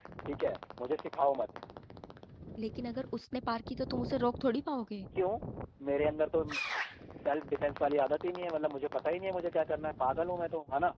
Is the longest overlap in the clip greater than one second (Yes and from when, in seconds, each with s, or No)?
No